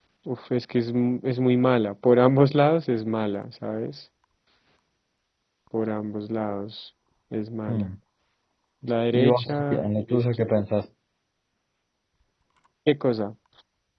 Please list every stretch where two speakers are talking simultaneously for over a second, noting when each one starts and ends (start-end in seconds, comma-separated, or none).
9.1-10.6